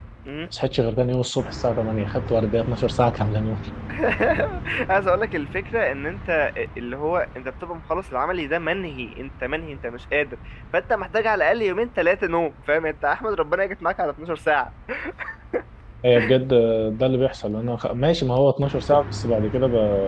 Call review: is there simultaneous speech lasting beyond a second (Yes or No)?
No